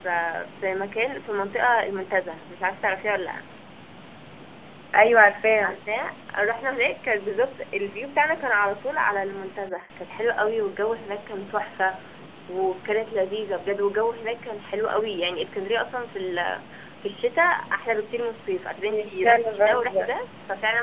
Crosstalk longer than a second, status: present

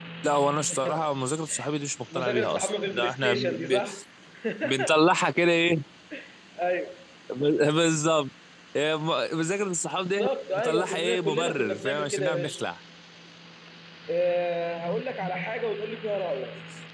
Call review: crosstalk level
present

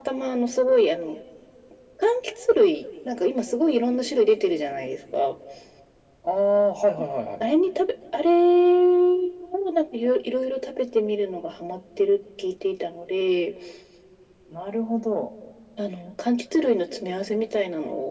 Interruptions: none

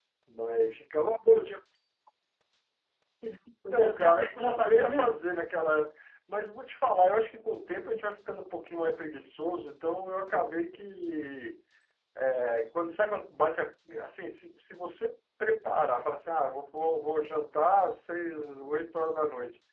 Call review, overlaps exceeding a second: present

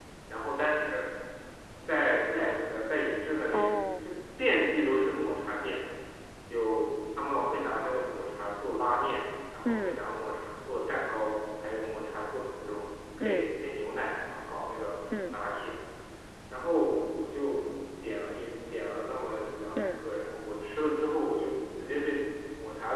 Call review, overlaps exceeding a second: none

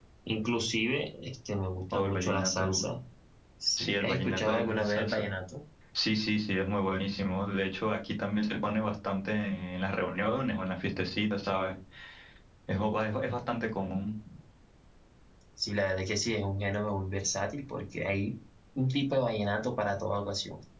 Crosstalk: present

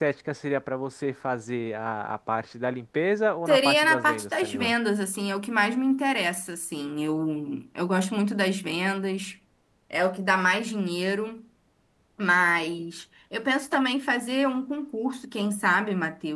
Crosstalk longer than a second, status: present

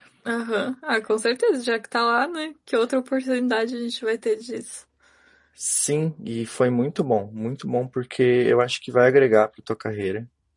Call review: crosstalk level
none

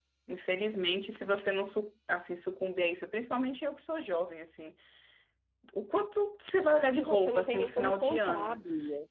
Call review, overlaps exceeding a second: present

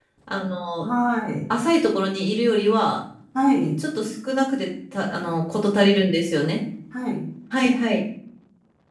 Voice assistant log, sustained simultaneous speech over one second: none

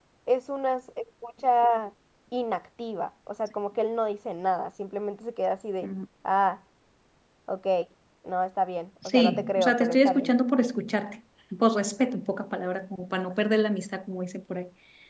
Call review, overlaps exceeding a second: present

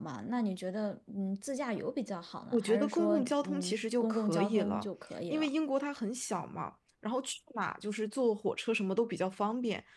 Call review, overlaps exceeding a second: present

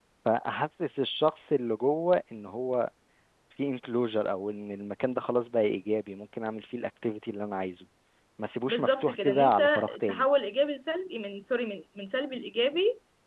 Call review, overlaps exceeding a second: present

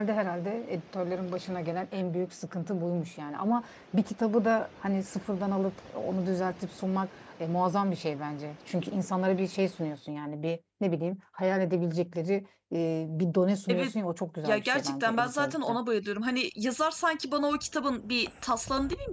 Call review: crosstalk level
present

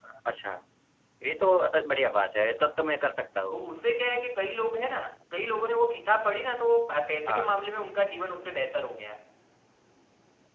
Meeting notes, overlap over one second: none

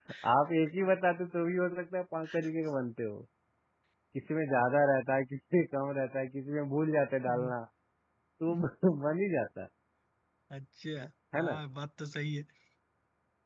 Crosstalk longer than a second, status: none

